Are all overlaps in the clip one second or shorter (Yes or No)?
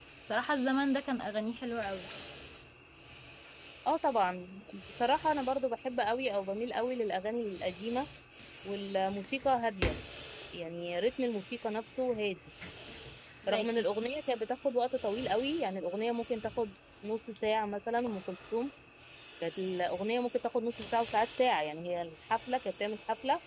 Yes